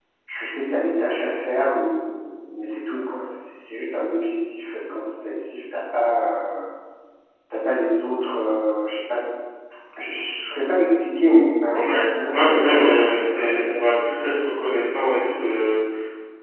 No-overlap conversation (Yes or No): No